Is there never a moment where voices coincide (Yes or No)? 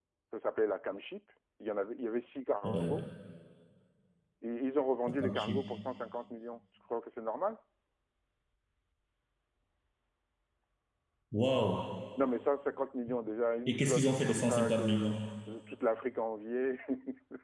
No